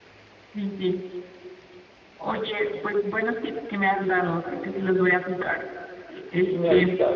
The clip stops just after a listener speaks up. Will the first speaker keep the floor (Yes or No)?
No